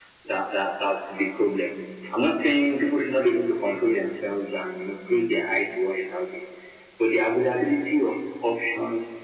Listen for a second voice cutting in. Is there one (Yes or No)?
No